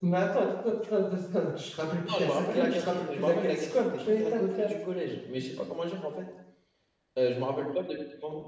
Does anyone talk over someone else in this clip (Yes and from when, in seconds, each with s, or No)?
Yes, from 2.0 s